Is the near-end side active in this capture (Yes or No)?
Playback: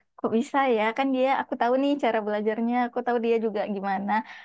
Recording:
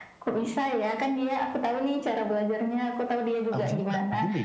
Yes